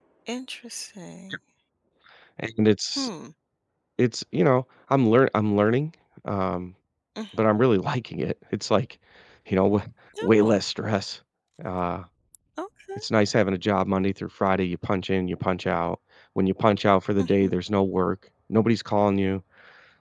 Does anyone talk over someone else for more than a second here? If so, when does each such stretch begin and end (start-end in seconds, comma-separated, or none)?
none